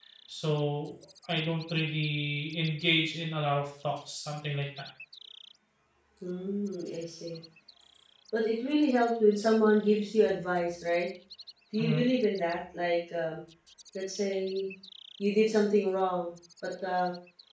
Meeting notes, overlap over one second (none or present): none